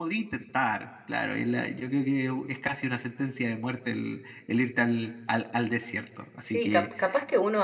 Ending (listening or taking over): taking over